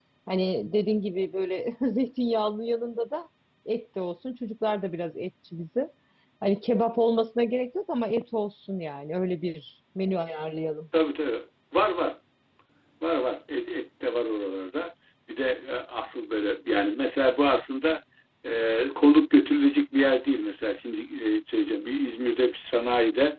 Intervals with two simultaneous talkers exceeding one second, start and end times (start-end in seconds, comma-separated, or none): none